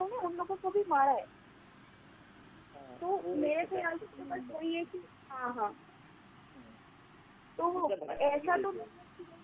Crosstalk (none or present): present